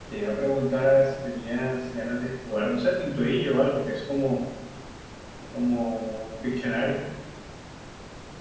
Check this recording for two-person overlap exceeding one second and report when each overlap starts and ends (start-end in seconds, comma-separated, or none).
none